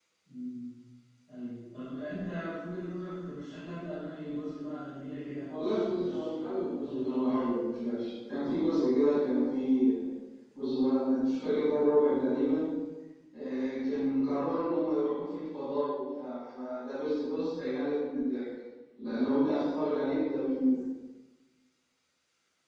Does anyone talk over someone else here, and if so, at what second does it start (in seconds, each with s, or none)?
5.5 s